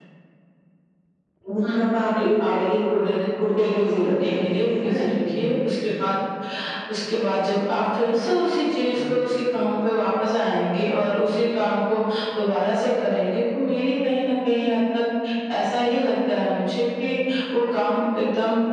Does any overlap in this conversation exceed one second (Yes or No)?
Yes